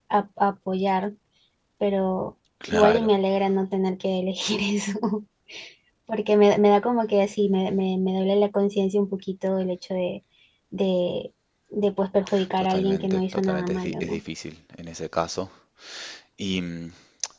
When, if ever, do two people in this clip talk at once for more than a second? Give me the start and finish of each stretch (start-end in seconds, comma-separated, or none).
12.6-14.2